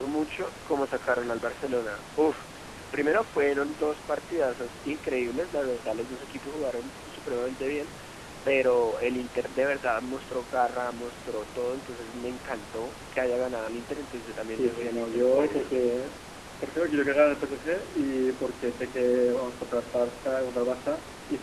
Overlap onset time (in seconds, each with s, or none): 14.5 s